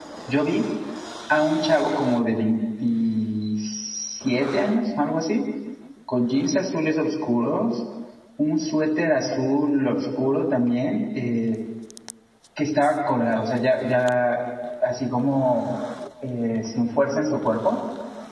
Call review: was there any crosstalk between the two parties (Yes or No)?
No